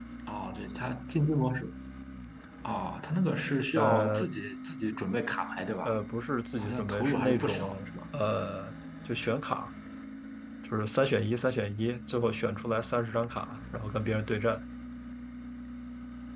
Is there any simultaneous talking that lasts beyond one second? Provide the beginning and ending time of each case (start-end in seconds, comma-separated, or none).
6.6-7.9